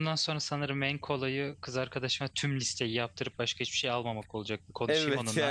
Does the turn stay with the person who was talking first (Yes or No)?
No